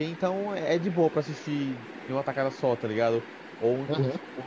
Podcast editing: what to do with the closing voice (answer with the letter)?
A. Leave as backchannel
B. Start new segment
A